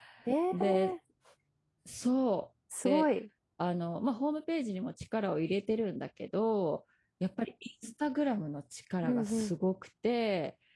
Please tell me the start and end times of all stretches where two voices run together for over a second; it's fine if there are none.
none

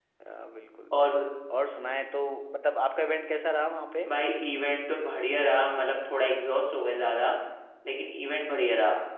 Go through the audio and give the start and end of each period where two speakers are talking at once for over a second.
none

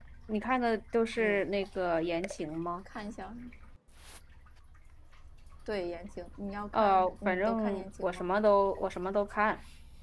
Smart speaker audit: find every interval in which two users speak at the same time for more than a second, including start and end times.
6.7-8.3

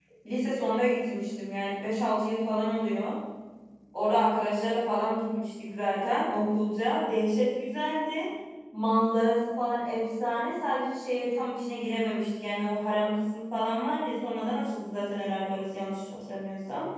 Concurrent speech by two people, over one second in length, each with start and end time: none

